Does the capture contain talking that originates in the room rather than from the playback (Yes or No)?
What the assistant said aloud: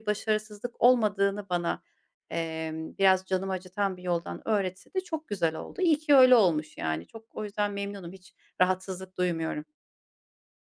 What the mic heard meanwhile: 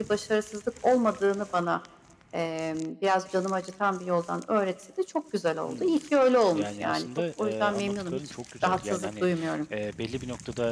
Yes